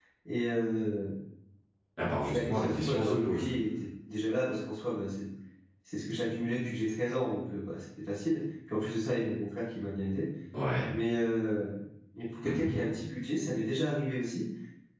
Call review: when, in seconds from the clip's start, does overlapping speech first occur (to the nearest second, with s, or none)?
2 s